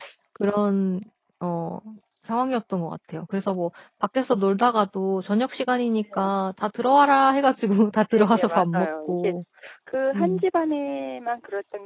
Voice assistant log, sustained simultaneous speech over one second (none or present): present